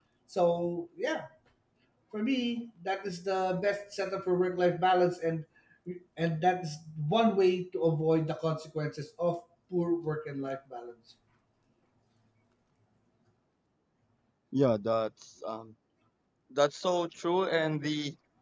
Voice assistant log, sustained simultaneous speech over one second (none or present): none